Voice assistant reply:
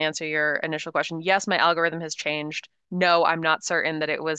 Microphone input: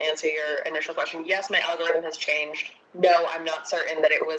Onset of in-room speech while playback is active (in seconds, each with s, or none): none